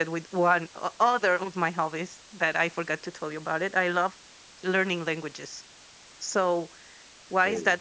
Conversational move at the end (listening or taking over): listening